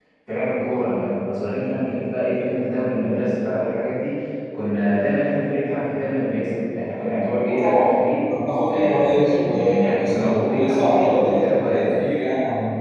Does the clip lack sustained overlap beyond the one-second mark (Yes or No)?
No